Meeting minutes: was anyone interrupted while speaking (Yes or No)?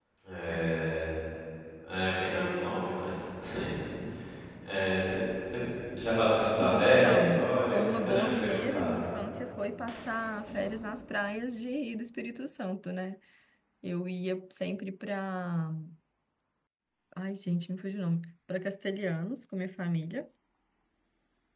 Yes